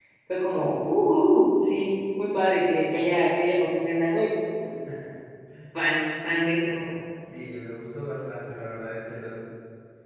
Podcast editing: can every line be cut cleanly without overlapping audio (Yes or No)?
Yes